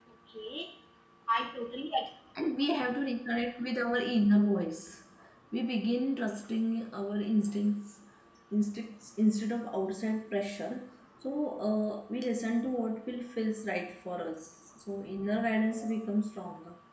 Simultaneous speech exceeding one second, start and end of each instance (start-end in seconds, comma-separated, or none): none